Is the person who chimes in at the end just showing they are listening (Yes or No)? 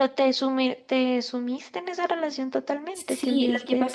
No